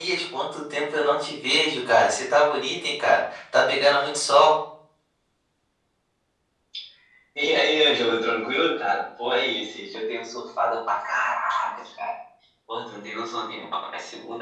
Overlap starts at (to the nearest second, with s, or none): none